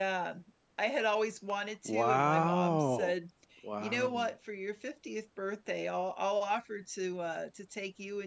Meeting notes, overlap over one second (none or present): present